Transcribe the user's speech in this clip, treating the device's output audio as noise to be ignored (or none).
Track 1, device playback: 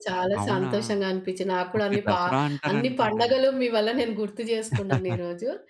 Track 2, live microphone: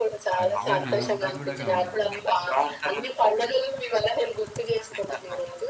తరచుగా గెలుస్తారు గూడా గావచ్చు మళ్ళీ!